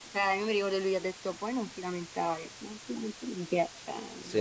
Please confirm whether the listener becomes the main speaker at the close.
Yes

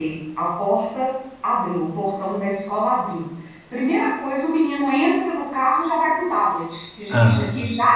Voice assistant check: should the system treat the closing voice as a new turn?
No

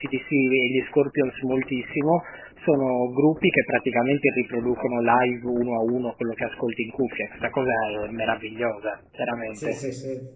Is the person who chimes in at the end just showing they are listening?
No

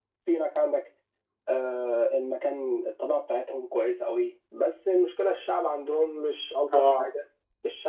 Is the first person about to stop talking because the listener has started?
No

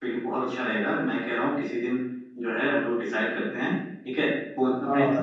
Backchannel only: Yes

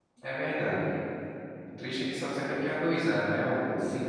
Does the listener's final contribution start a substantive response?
Yes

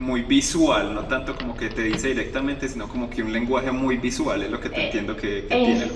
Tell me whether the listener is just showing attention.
No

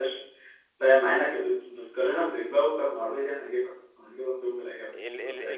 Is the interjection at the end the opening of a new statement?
Yes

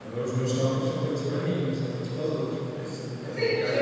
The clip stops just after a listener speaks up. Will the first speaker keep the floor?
No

